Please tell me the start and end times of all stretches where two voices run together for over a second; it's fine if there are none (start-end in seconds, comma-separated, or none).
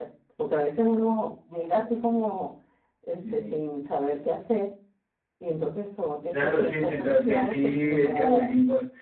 6.3-8.5